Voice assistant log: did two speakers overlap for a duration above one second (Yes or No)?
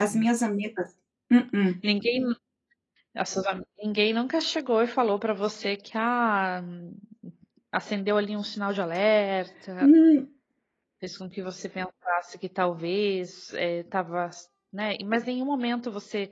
No